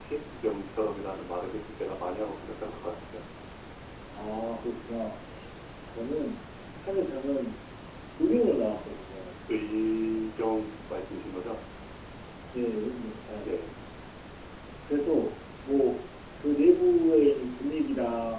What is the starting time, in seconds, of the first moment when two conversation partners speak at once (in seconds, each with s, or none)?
none